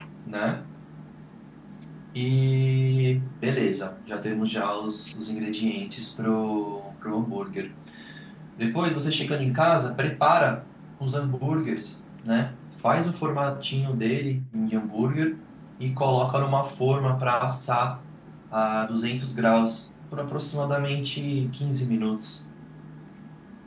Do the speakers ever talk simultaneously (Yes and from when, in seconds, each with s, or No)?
No